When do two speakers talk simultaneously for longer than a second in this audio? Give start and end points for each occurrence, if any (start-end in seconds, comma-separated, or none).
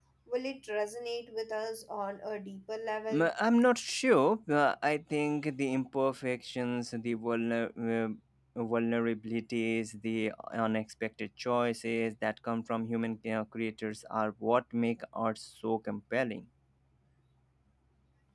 none